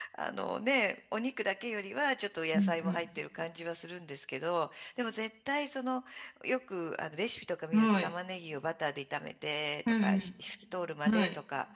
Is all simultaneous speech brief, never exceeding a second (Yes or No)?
Yes